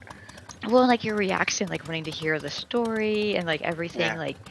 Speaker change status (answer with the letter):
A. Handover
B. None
B